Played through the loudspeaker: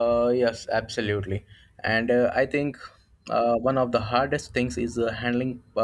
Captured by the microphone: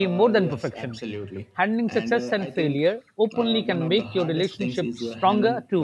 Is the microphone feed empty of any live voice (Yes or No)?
No